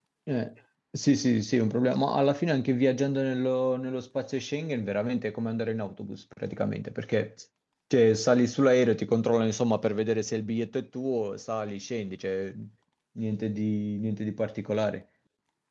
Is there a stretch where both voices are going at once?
No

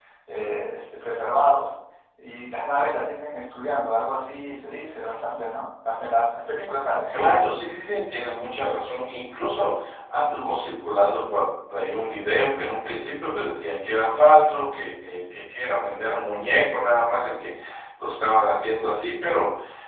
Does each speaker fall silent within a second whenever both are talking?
Yes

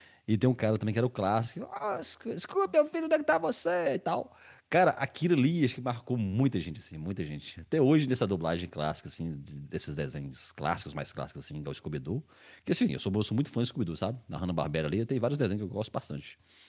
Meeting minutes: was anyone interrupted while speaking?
No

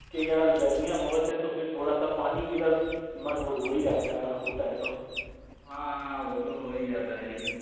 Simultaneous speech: No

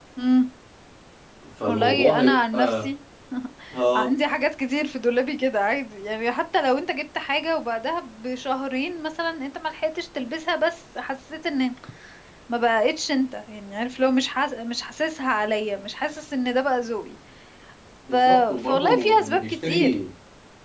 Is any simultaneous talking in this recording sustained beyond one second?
Yes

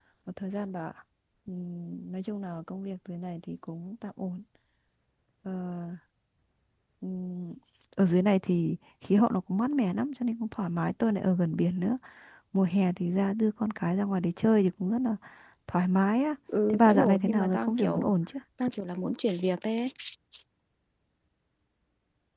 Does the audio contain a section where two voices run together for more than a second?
Yes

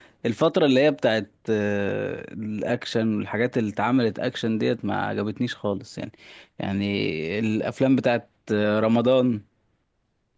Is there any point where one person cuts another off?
No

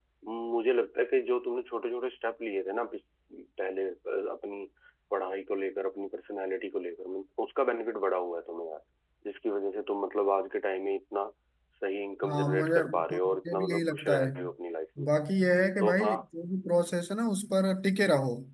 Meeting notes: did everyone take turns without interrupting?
No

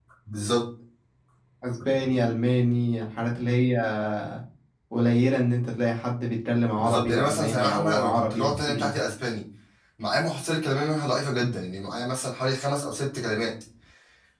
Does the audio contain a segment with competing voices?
Yes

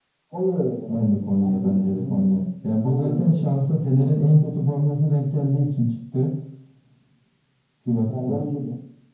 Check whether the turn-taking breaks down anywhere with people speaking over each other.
Yes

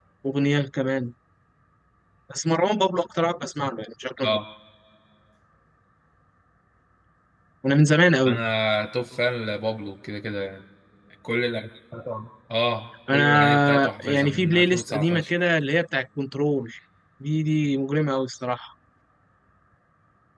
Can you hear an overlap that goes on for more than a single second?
Yes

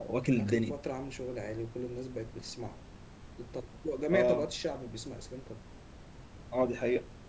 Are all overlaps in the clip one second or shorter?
Yes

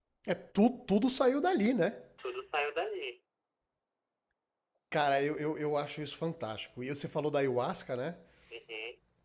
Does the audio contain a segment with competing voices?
No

